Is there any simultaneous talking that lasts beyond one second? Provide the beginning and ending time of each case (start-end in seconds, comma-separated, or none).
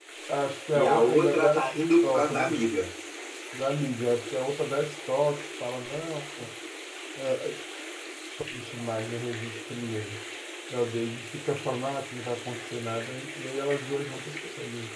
0.7-2.6